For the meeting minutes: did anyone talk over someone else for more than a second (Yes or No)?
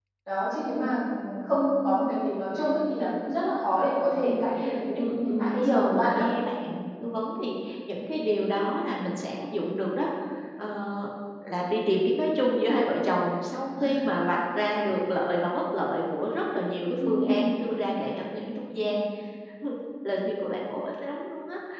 Yes